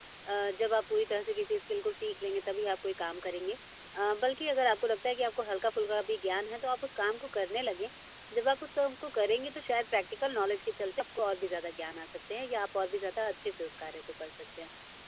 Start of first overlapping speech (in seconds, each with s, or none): none